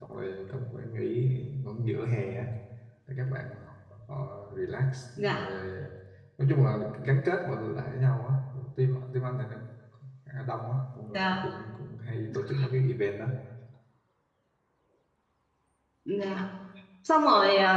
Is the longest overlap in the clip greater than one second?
No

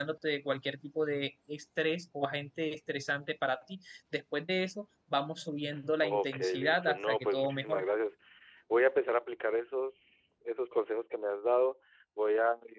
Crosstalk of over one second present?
Yes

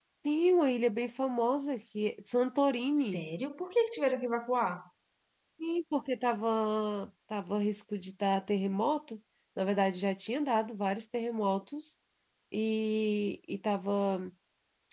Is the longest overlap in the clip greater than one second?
No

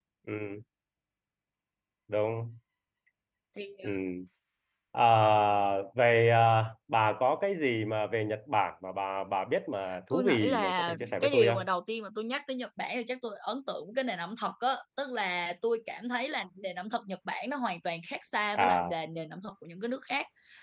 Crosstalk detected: Yes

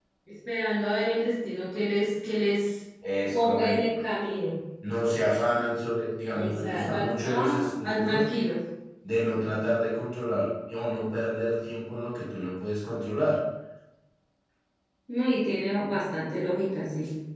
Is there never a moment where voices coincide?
No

